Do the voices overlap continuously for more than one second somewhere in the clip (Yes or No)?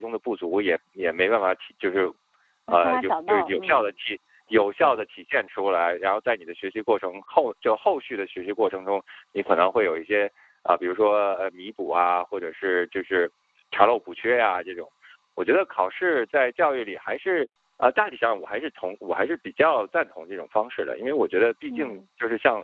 Yes